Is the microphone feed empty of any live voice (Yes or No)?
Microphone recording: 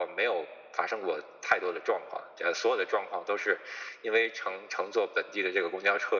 Yes